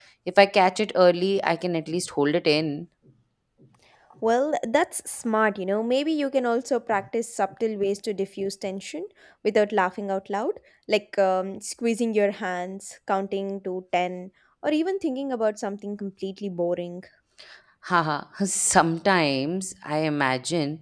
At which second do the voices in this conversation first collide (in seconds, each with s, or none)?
none